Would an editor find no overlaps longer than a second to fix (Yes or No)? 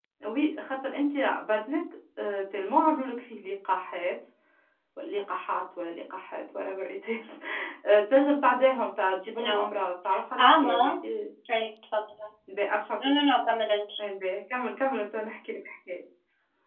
Yes